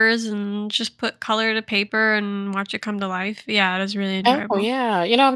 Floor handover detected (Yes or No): Yes